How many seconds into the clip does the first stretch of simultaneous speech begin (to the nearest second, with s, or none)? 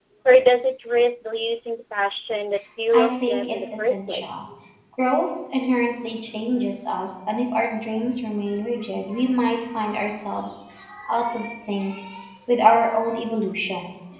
3 s